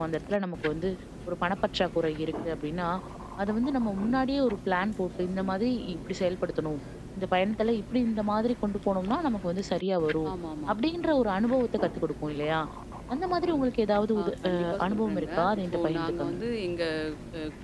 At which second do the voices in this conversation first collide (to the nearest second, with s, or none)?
14 s